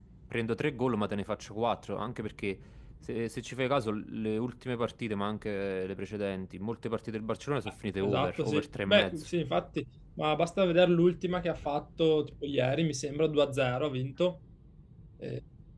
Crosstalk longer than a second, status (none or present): present